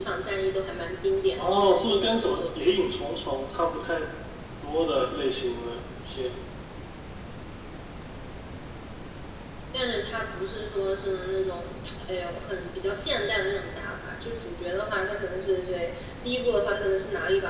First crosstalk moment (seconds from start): 1.4 s

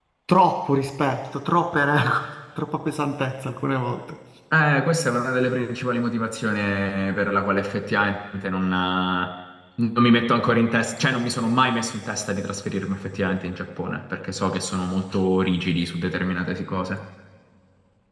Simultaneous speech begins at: none

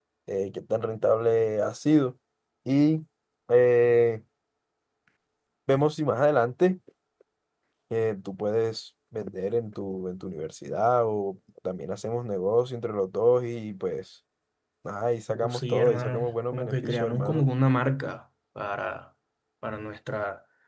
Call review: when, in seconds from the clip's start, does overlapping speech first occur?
15.3 s

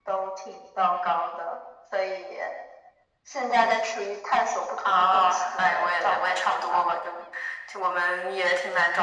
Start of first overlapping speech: 4.8 s

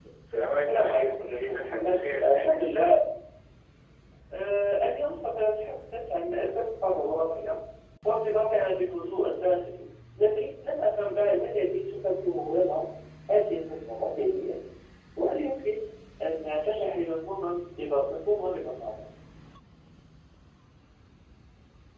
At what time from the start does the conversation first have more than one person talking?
0.7 s

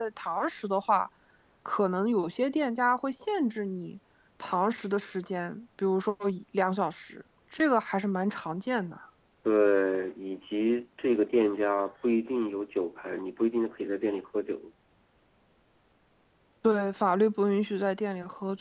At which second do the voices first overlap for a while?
none

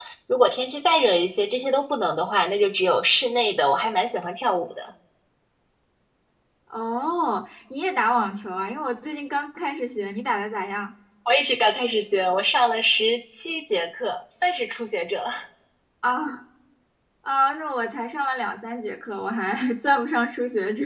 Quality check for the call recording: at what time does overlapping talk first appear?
none

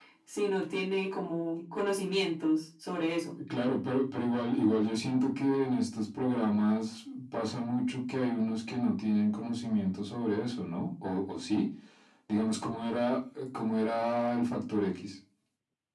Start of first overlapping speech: none

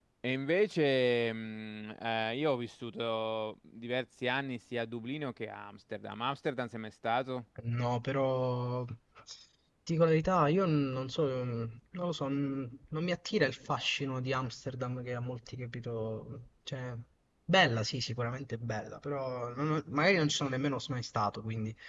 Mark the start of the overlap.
none

